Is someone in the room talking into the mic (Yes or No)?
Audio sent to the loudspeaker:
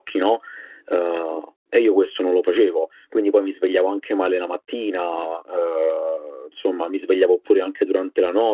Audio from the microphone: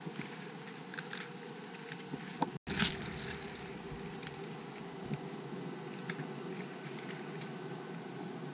No